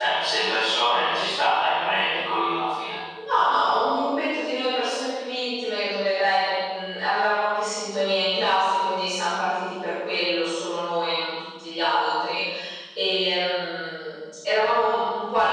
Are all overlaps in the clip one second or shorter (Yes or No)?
Yes